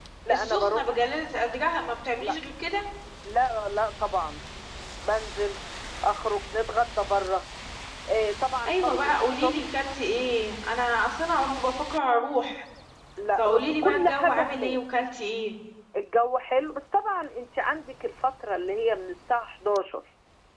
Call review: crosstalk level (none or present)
present